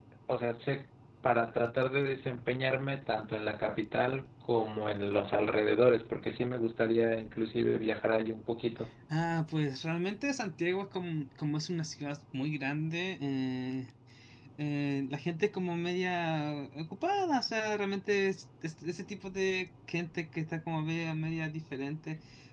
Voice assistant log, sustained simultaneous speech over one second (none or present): none